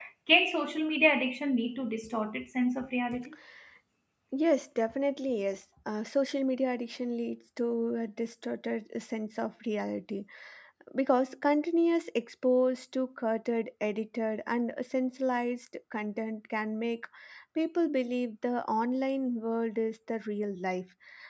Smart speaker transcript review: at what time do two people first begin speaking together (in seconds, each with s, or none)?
none